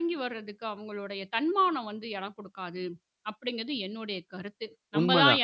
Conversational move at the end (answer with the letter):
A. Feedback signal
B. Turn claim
B